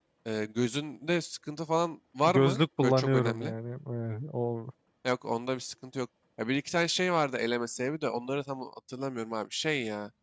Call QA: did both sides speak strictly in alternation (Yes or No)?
No